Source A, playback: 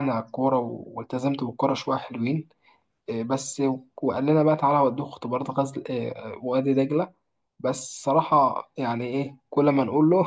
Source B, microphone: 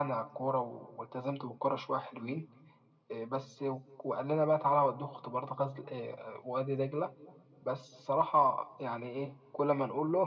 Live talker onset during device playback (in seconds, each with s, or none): none